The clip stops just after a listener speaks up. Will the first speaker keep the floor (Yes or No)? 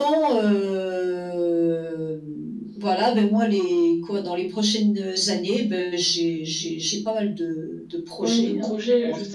No